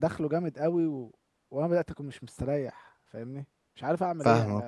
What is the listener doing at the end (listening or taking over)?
taking over